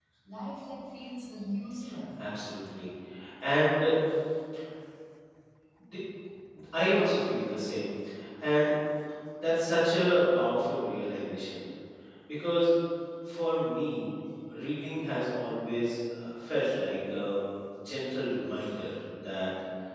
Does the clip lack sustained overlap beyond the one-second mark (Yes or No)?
Yes